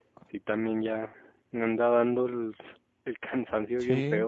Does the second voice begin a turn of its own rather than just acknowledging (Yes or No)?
Yes